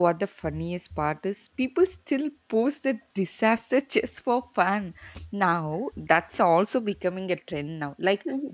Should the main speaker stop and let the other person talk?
No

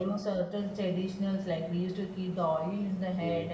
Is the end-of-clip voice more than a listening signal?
No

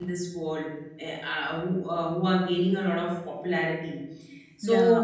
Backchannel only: Yes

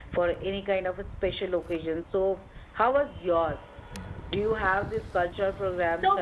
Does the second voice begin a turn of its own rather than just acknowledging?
Yes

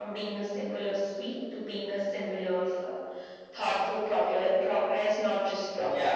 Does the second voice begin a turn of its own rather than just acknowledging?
Yes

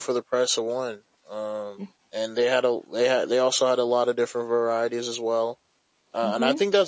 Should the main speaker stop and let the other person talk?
No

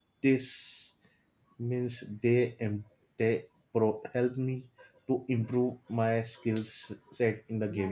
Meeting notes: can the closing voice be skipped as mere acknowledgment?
No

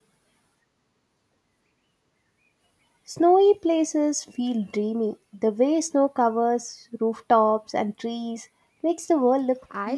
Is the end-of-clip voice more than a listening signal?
Yes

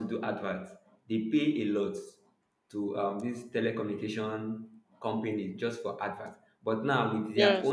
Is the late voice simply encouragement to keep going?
Yes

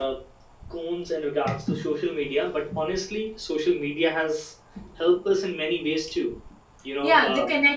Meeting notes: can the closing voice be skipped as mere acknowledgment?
No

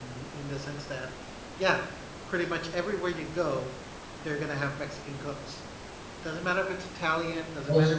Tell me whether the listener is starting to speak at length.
No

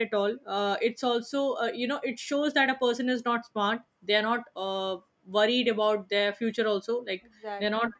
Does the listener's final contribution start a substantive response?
No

